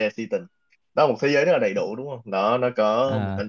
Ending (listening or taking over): listening